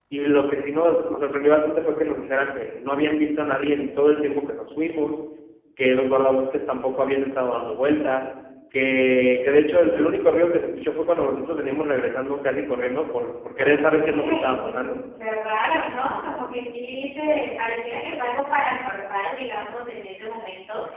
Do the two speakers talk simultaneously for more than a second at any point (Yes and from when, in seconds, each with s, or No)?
Yes, from 13.6 s